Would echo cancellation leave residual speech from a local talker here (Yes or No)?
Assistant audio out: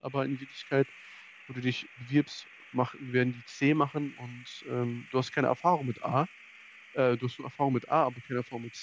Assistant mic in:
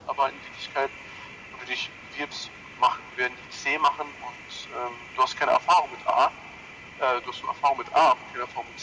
No